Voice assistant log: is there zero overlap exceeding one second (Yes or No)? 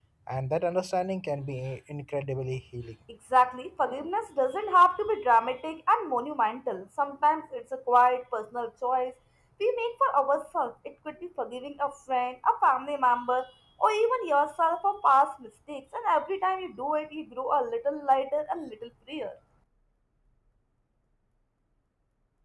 Yes